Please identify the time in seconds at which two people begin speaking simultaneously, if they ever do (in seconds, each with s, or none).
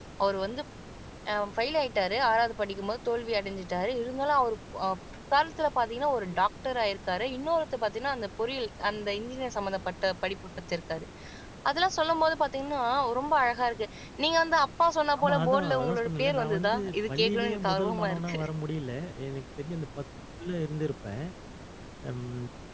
15.2 s